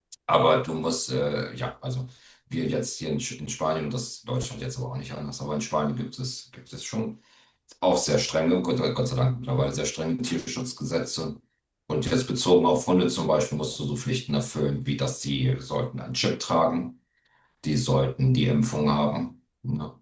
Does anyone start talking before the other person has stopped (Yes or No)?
No